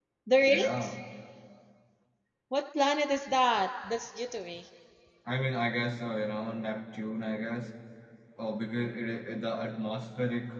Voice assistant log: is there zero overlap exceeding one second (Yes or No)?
Yes